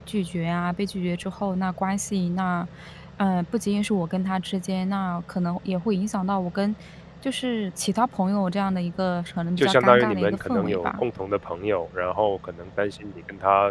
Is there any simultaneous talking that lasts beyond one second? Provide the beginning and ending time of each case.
9.6-11.0

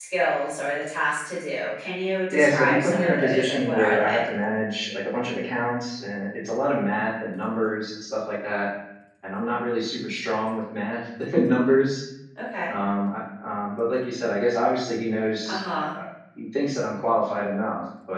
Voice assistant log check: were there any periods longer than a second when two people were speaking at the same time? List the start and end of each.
2.3-4.2

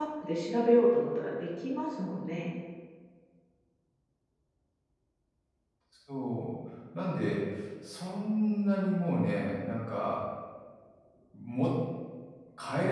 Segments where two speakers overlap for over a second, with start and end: none

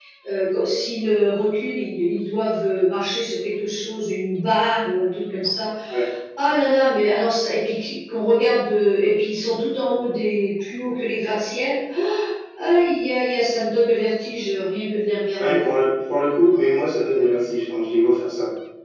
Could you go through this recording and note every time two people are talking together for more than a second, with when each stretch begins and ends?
none

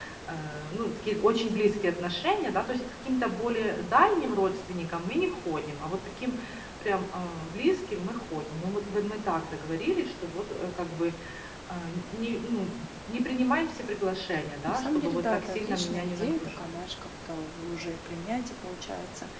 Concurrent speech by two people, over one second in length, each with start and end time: 14.7-16.7

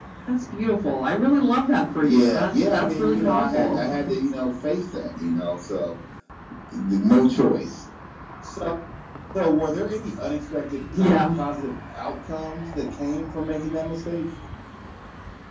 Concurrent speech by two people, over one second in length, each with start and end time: 2.0-3.8

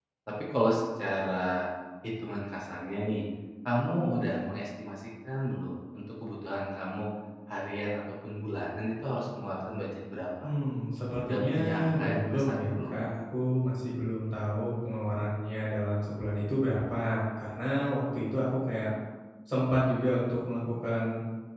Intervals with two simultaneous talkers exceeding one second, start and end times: 11.2-12.9

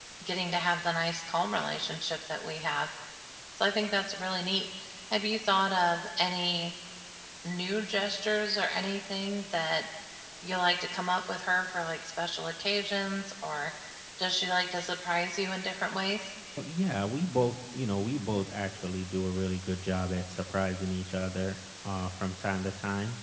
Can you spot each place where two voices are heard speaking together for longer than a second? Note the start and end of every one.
none

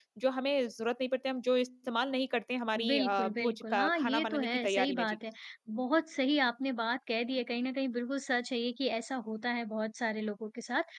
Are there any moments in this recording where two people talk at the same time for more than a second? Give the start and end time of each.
2.9-5.2

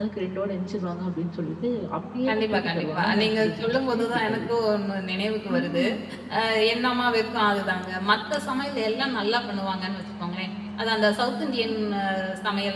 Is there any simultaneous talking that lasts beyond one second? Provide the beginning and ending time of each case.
2.3-4.4

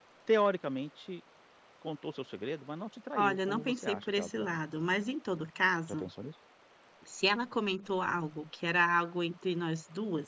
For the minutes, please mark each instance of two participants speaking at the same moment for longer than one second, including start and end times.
3.1-4.6

